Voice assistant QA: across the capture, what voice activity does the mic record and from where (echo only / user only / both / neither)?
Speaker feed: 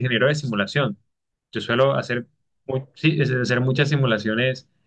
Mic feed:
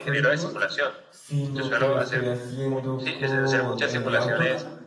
both